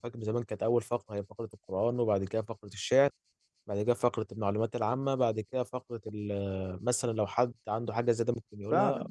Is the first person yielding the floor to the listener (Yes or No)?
Yes